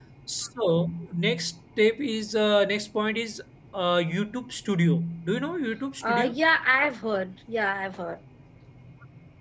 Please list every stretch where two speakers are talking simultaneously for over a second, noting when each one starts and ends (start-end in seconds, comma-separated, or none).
none